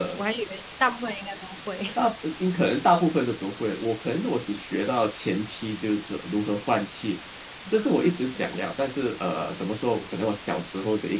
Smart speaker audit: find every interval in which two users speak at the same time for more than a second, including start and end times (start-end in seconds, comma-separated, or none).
none